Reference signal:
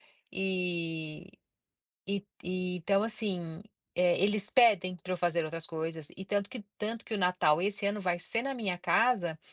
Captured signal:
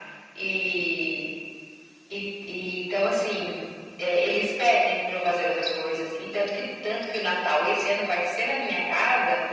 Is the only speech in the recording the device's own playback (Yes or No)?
Yes